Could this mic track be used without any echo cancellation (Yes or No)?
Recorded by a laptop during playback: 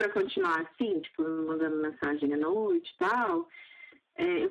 No